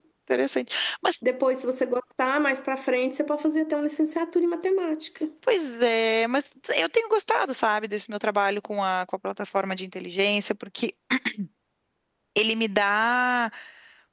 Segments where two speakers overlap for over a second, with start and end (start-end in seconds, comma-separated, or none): none